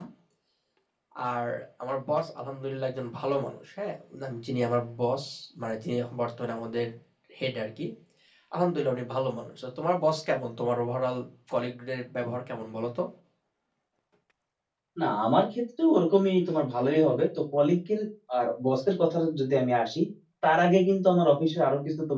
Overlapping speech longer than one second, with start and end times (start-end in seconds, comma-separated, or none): none